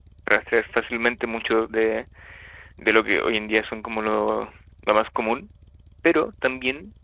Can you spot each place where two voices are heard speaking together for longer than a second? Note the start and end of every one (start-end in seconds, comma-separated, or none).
none